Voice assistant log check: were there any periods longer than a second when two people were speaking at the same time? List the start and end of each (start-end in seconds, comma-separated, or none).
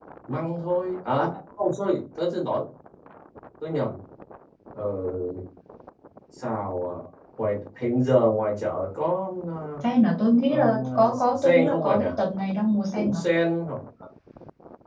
10.5-12.0